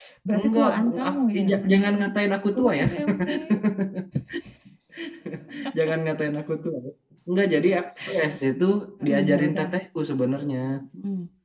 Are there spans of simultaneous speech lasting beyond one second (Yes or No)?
Yes